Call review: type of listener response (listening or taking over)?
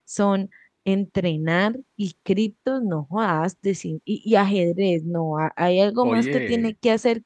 listening